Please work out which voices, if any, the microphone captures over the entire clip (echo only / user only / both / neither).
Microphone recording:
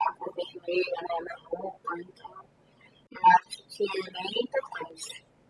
echo only